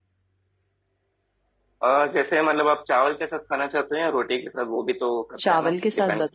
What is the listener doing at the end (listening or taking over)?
taking over